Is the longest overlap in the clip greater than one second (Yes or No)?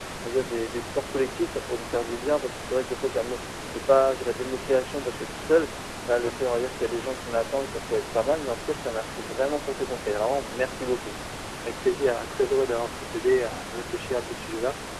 No